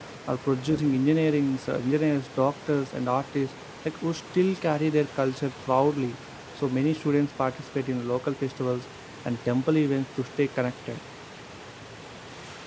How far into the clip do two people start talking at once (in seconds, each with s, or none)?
none